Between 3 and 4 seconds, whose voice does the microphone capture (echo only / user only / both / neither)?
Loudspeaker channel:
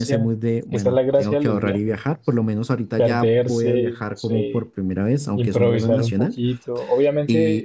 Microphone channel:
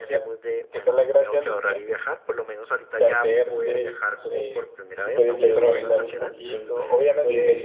echo only